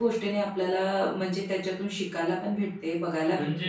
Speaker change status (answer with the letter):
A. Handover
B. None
A